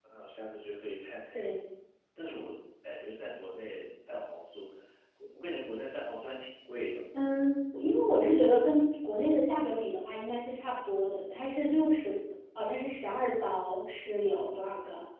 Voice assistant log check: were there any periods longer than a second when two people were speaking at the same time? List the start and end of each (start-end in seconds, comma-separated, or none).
none